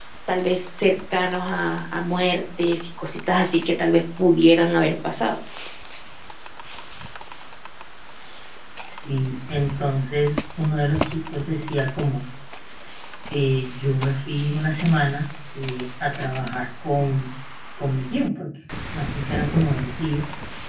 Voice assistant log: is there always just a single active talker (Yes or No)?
Yes